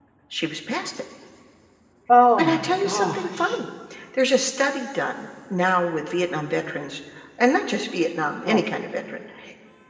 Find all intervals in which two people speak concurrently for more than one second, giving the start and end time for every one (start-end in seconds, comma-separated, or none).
2.4-3.6